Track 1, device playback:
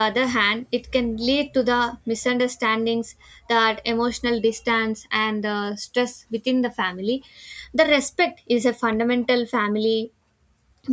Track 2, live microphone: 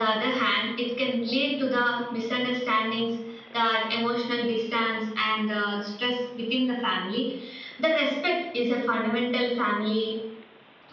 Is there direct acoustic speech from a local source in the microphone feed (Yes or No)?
No